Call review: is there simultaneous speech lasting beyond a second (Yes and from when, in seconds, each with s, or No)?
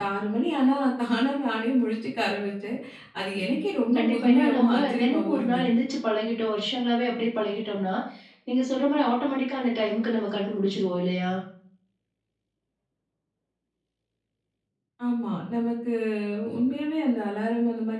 Yes, from 3.9 s